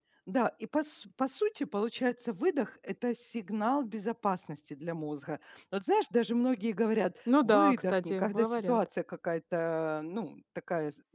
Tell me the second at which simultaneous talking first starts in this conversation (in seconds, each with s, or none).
7.3 s